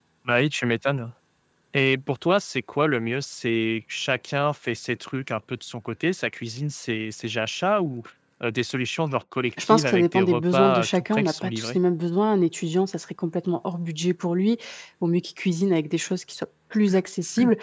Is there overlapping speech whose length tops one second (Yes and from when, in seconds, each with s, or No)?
Yes, from 9.6 s